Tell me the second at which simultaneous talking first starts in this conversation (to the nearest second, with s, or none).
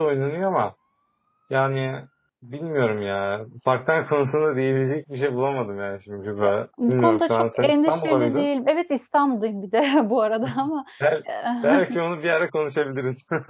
7 s